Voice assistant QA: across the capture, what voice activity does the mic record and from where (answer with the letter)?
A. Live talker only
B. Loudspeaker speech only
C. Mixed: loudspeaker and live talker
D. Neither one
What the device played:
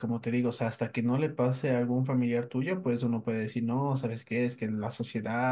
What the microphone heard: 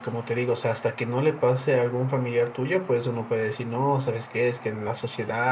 B